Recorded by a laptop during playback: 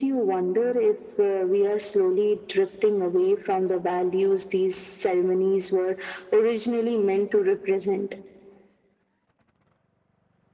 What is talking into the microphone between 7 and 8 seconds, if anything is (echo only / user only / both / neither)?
echo only